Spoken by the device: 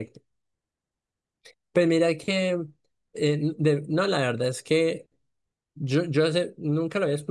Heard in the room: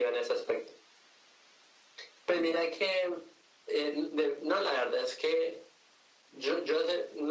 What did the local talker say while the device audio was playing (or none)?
none